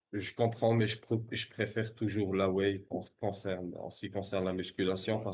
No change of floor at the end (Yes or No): Yes